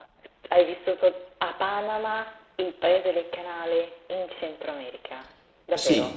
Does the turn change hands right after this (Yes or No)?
Yes